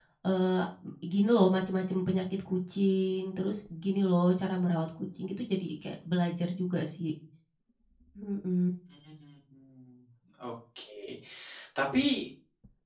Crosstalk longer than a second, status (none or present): none